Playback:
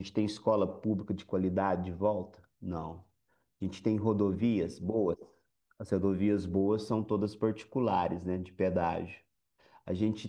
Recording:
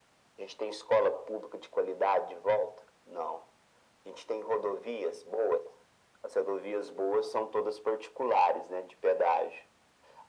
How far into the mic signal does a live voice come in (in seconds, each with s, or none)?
none